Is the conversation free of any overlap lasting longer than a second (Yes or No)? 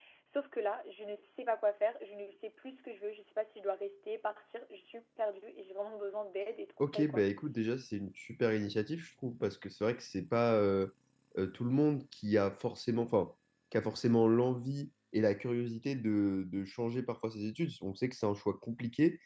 Yes